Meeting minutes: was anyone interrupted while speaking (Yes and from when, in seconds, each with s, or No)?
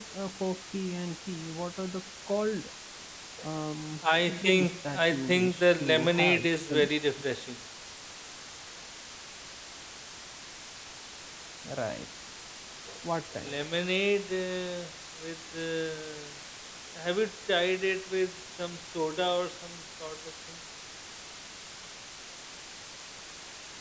Yes, from 4.3 s